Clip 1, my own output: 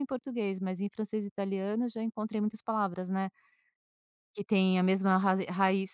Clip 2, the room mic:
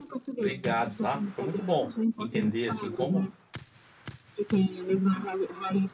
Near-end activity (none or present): present